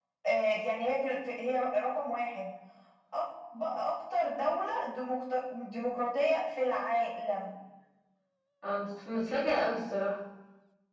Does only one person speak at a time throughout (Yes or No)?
Yes